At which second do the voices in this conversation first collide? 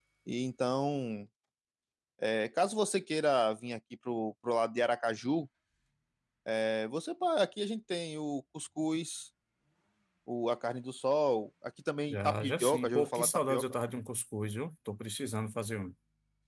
12 s

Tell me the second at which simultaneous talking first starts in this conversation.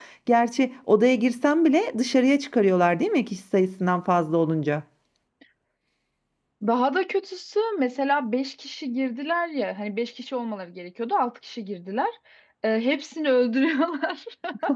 none

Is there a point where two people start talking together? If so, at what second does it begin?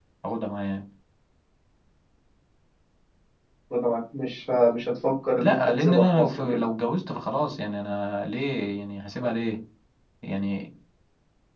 5 s

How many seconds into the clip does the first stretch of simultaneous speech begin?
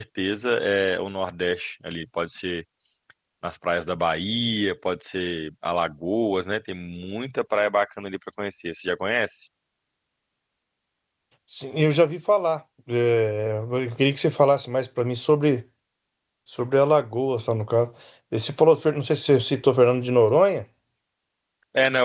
none

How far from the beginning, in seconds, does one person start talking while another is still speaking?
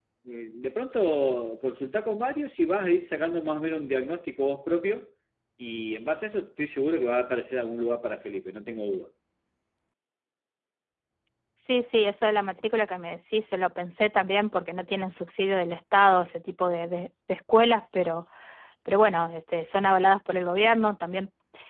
none

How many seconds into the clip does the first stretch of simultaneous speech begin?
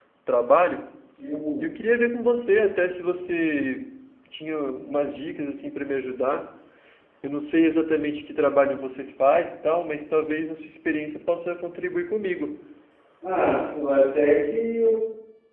none

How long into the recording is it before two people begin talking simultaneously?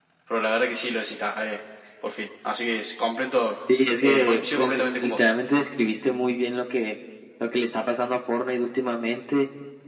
4 s

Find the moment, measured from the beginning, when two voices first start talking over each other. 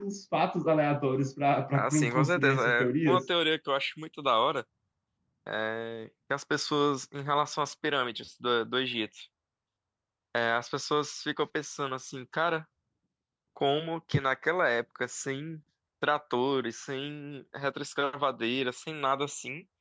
2 s

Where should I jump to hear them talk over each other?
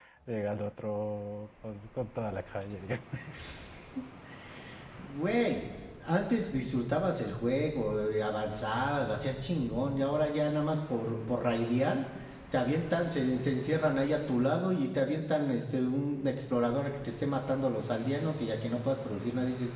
none

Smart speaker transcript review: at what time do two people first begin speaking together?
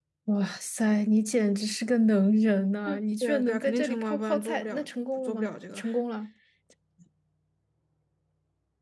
3 s

